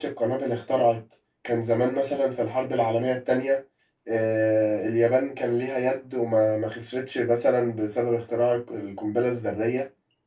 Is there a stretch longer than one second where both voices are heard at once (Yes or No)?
No